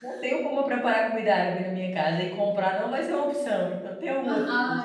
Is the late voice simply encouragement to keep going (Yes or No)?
No